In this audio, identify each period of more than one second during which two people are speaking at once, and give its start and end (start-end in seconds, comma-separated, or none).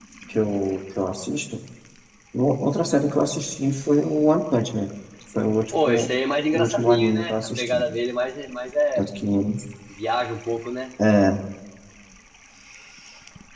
6.5-7.8